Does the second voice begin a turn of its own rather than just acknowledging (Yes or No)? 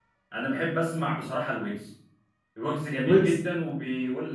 No